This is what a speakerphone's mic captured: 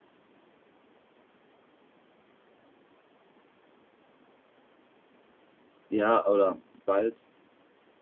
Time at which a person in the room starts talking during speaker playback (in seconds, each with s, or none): 5.9 s